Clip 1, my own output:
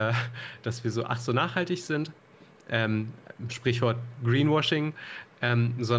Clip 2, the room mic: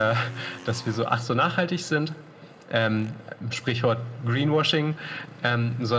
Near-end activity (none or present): none